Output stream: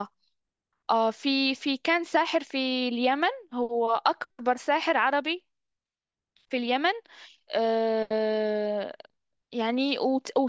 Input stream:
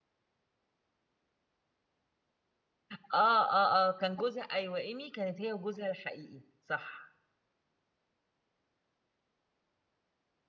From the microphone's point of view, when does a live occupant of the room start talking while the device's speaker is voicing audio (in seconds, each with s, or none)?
2.9 s